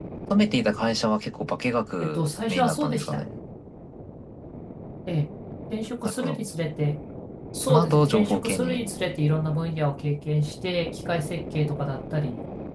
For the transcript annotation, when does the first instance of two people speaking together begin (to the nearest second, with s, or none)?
2 s